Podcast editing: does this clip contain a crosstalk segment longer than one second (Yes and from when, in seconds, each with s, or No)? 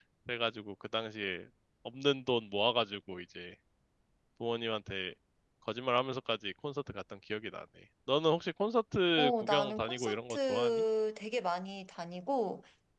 Yes, from 9.2 s